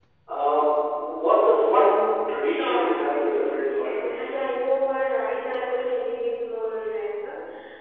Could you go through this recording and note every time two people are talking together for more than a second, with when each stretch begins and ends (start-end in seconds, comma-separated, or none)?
2.4-4.1